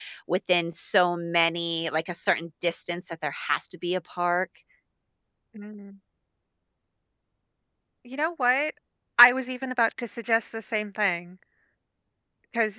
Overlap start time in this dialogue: none

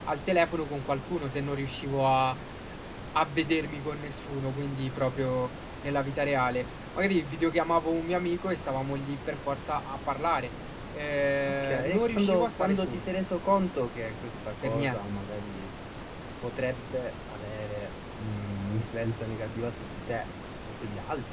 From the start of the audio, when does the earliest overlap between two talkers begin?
11.5 s

